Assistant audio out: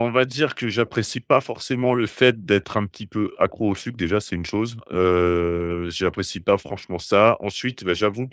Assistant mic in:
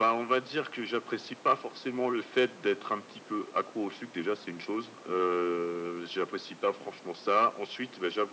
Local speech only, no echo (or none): none